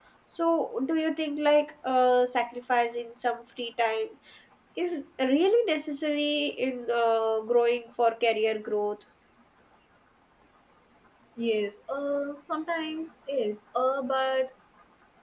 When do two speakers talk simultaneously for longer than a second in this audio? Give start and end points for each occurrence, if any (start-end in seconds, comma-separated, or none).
none